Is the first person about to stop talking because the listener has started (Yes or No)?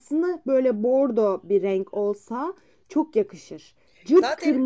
Yes